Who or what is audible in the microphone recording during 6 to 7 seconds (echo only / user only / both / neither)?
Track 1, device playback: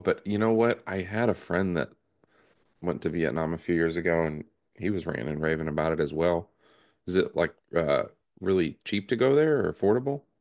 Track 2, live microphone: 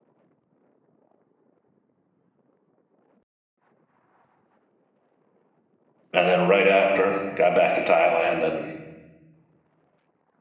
user only